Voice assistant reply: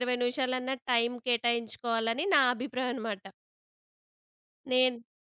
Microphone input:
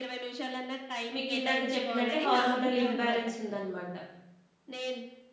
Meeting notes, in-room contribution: present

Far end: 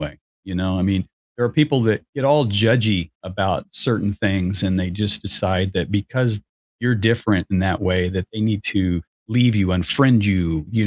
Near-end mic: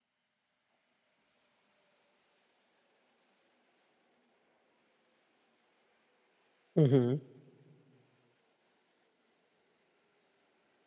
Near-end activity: present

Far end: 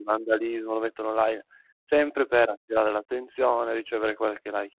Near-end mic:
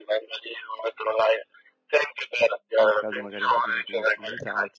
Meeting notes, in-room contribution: present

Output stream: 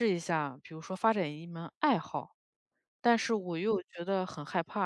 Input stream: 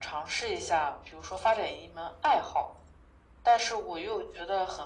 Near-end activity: none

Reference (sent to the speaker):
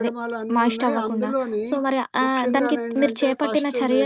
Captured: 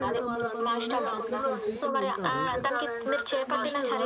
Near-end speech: present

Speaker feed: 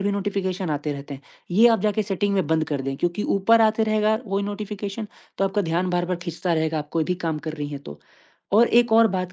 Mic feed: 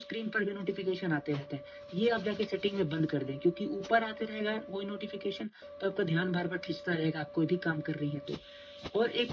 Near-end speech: none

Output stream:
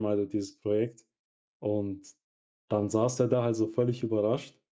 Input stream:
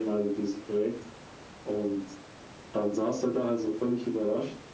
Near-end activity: none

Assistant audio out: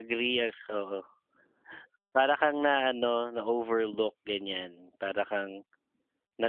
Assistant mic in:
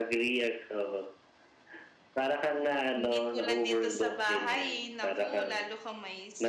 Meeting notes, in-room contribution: present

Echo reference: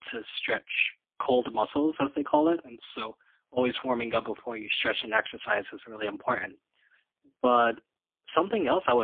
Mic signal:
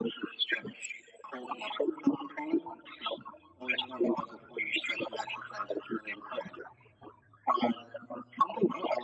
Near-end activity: none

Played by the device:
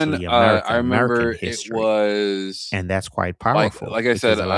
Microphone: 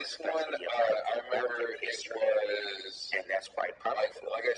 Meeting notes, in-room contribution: none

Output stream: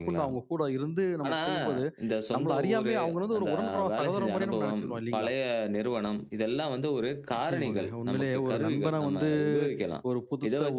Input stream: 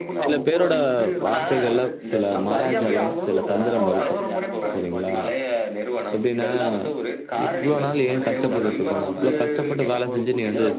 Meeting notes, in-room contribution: present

